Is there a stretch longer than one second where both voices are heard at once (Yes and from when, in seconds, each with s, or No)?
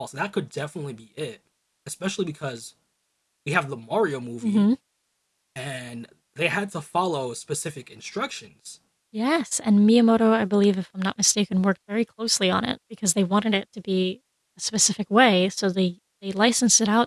No